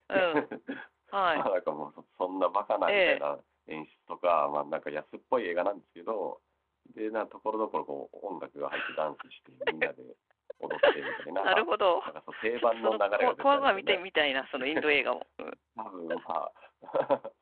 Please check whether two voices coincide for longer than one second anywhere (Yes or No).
Yes